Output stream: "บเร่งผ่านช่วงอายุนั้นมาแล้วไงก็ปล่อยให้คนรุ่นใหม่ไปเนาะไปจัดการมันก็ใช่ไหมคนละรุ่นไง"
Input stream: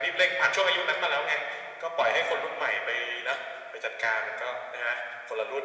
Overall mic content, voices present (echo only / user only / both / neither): echo only